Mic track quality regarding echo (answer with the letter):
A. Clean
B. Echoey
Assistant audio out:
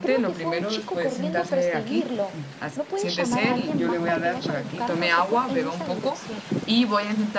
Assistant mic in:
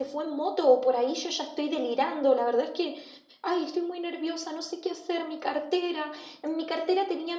A